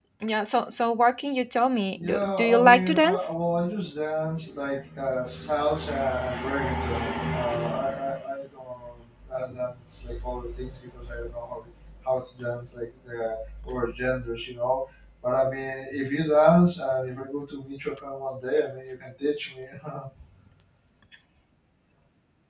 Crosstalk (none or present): present